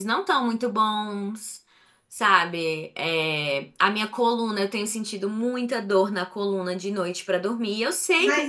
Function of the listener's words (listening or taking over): taking over